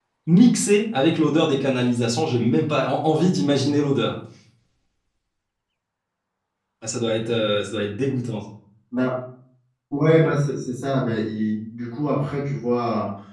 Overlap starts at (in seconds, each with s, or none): none